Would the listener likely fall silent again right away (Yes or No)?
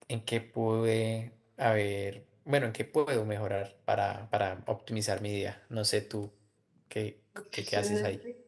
No